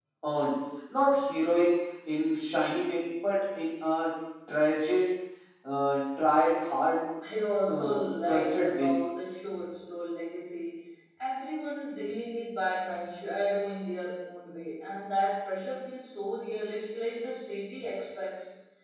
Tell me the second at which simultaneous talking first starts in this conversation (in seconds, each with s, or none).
7.7 s